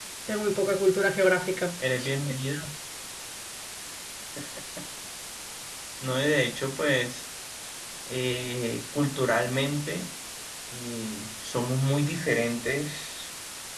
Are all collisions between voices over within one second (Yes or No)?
Yes